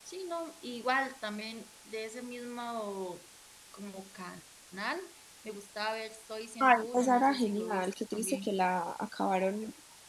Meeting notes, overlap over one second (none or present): present